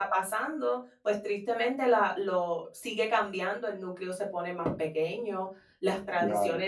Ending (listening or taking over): listening